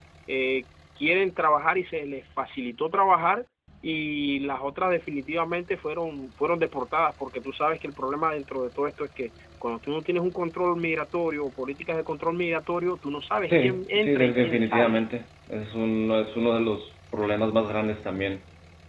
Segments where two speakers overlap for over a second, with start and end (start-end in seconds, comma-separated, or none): 13.5-15.1